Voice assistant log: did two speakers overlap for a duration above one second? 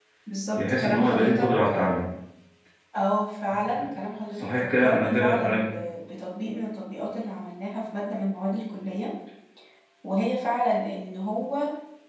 Yes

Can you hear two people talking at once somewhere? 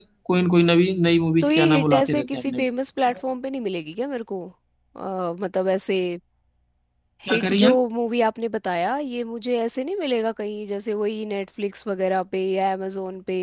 Yes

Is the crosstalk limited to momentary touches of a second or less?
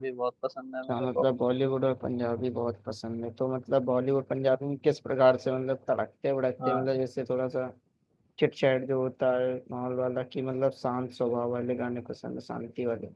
Yes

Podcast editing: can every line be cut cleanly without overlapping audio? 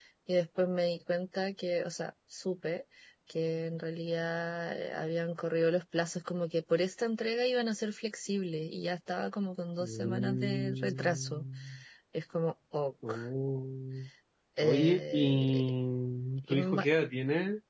No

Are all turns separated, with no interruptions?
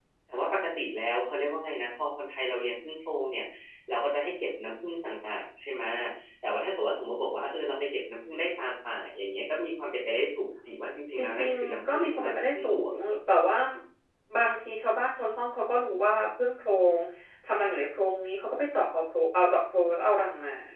No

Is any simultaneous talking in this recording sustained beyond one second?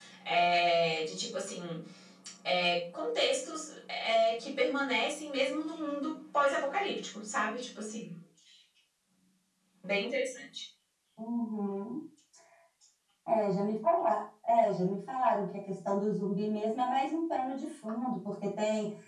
No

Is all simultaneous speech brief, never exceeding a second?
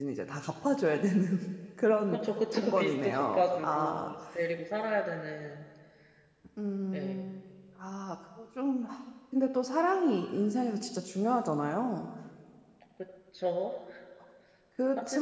No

